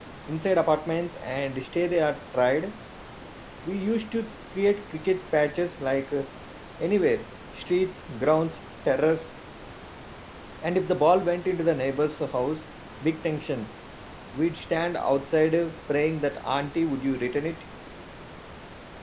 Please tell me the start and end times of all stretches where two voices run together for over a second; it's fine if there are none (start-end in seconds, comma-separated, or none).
none